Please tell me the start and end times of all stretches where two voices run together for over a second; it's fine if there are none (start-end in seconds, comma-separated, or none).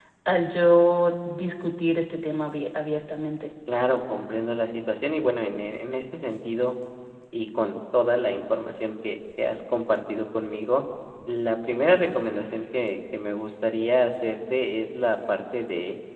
none